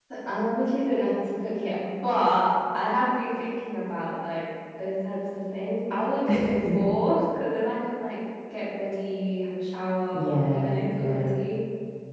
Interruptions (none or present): present